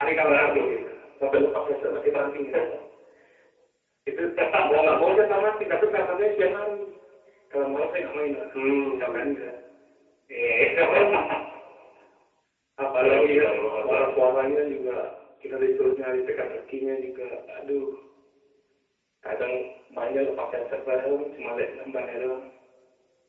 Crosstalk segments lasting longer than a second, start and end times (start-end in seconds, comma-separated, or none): 13.0-14.2